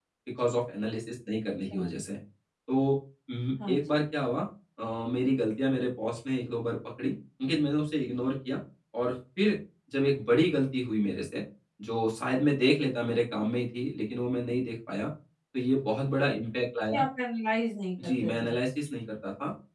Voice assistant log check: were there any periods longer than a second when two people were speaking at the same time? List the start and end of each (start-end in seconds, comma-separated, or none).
none